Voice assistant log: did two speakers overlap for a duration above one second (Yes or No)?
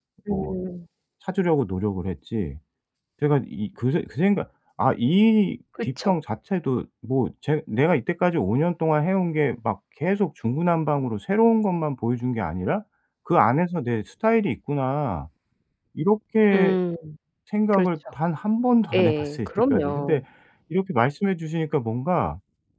Yes